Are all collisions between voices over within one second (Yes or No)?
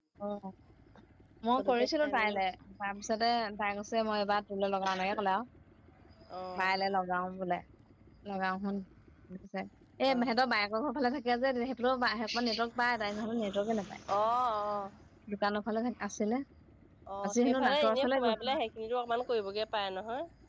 No